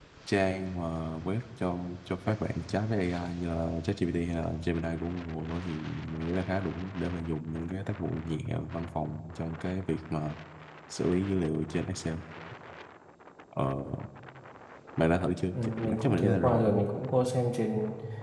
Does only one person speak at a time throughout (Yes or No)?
No